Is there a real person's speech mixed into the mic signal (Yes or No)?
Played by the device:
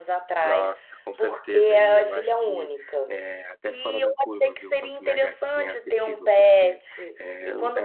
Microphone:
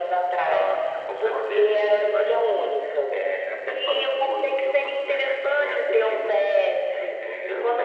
No